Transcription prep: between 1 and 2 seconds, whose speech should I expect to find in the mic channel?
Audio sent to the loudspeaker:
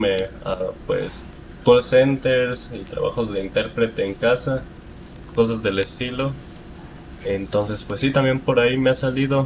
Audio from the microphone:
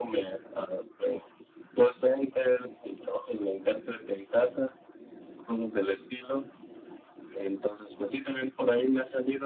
echo only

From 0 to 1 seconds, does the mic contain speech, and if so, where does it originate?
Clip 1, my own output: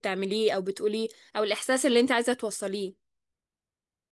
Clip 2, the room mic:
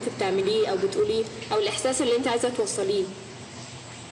echo only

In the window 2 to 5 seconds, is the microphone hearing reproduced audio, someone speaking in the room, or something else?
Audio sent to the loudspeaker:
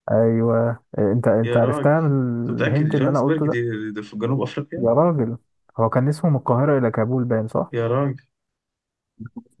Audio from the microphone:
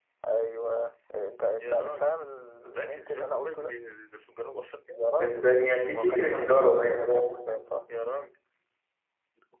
echo only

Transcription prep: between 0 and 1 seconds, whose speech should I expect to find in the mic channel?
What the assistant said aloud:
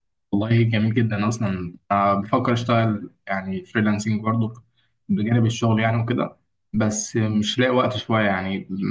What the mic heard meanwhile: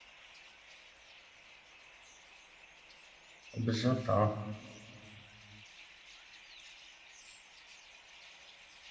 neither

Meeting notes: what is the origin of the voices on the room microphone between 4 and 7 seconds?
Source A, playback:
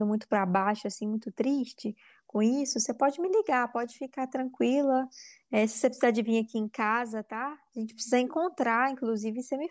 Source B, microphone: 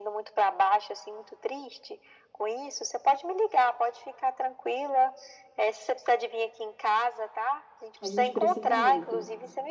echo only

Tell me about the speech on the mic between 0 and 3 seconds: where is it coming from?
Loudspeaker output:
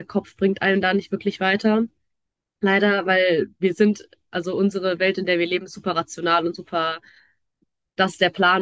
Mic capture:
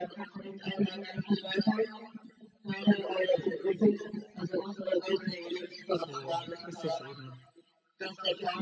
echo only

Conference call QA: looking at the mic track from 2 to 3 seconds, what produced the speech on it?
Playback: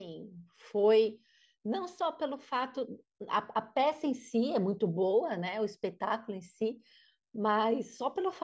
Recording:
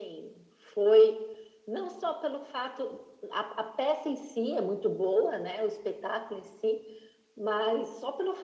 echo only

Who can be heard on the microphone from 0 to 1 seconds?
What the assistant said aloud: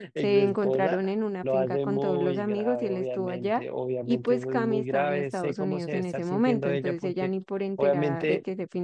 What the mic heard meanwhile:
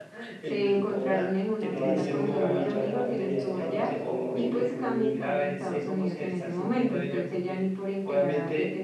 echo only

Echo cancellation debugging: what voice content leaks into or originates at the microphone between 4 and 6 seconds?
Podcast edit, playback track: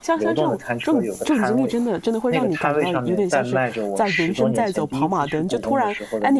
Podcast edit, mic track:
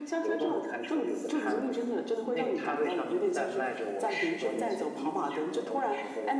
echo only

